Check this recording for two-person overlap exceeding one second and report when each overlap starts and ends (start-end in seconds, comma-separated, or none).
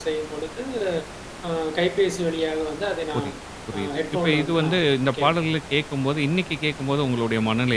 3.7-5.5